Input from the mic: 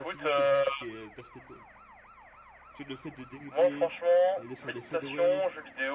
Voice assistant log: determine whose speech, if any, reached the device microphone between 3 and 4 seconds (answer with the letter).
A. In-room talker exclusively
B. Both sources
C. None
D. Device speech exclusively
B